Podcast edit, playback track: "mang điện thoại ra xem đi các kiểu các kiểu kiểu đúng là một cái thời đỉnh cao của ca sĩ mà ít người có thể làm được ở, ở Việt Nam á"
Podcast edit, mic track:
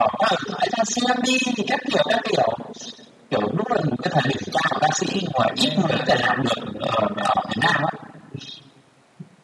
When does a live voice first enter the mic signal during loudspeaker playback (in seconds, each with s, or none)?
5.5 s